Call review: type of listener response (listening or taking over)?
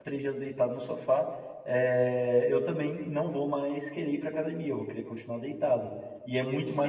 taking over